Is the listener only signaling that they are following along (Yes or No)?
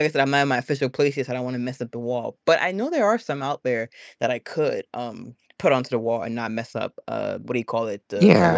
No